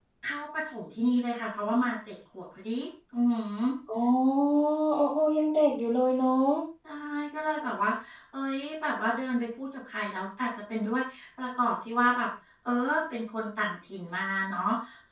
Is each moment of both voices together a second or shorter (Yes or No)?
Yes